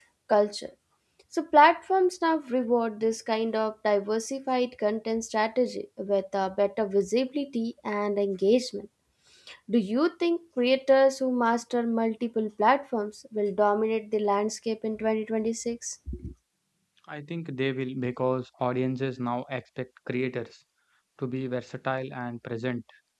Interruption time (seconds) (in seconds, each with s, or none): none